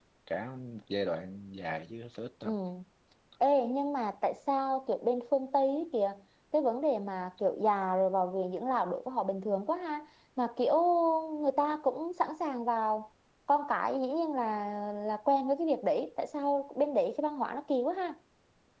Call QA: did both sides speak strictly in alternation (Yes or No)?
Yes